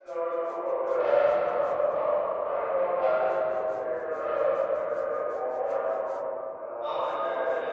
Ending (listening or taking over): taking over